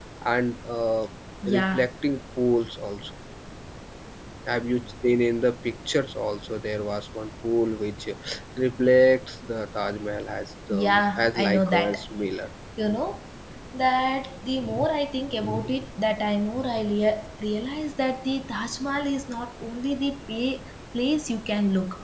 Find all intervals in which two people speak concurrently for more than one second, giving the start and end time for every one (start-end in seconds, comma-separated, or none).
10.7-12.0